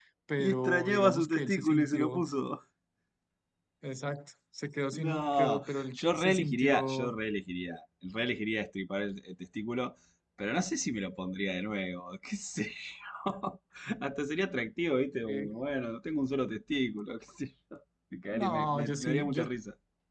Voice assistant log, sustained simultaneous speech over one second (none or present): present